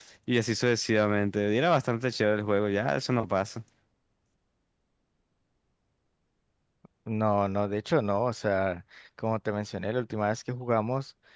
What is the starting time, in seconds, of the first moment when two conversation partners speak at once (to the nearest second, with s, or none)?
none